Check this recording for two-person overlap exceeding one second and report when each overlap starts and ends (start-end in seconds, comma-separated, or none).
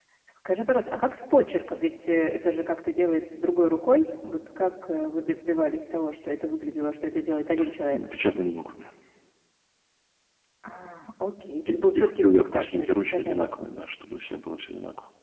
11.7-13.5